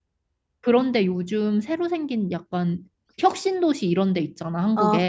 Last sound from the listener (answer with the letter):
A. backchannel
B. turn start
B